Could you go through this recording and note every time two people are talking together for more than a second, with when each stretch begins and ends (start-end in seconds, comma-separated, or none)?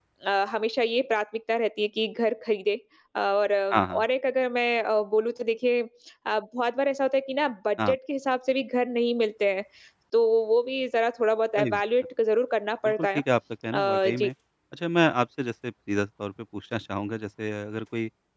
none